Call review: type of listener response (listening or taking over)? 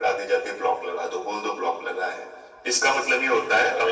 listening